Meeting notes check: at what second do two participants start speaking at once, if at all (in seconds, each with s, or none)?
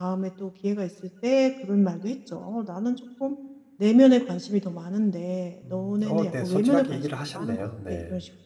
5.6 s